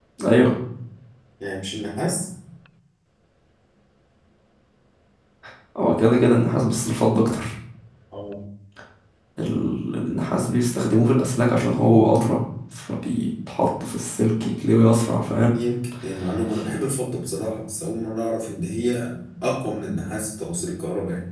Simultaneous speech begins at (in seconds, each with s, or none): none